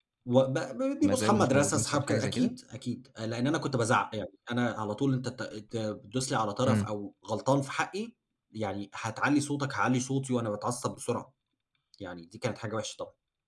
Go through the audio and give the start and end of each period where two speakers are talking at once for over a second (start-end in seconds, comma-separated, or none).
1.0-2.5